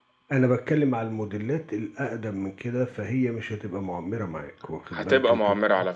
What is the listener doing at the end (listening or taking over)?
taking over